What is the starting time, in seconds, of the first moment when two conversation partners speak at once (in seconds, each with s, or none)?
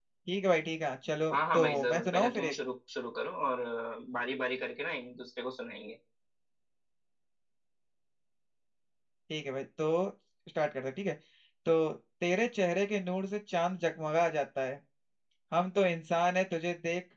1.3 s